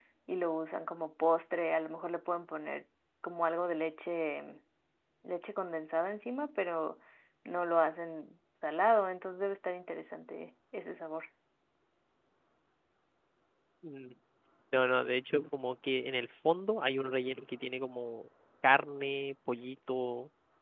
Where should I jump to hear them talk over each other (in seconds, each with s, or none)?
none